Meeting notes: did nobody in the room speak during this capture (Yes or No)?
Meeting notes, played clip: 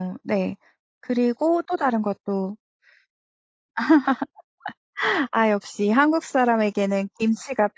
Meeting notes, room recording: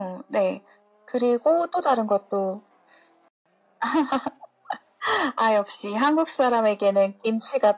Yes